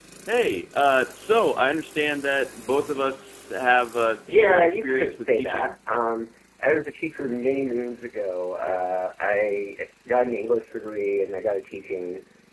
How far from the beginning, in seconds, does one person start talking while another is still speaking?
4.3 s

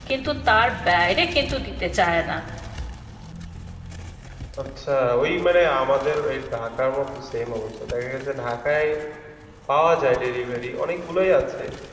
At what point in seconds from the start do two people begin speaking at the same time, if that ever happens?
none

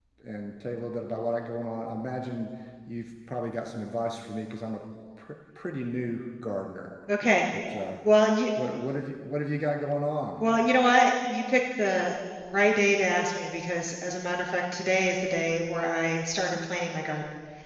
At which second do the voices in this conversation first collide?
none

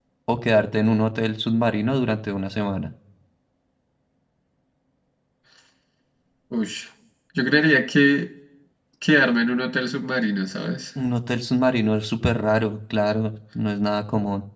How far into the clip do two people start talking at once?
none

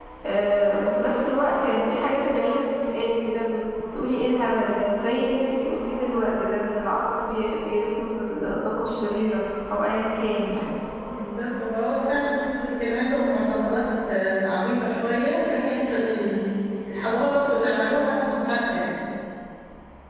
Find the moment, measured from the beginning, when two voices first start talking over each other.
none

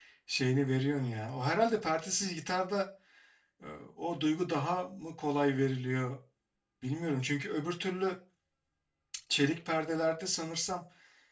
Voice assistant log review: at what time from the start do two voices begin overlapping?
none

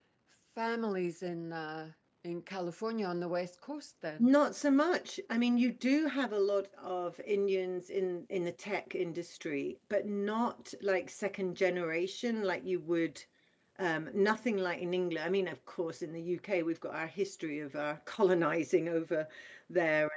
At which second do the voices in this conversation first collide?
none

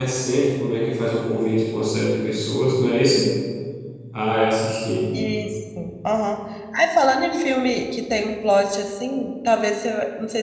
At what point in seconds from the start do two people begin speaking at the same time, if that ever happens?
none

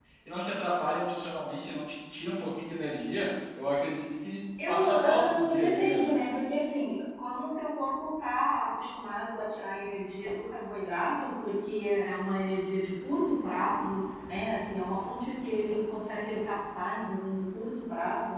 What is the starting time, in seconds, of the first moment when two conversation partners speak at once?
4.6 s

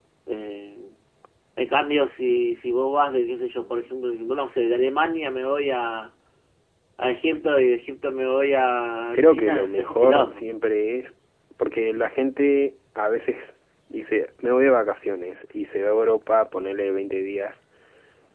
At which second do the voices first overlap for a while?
9.1 s

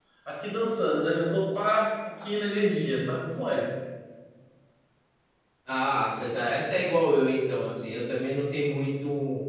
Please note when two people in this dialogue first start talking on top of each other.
none

